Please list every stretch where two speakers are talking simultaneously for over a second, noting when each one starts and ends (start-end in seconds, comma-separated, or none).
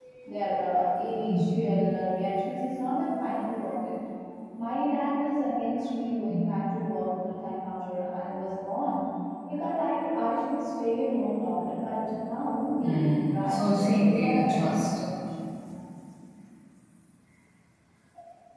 12.8-14.9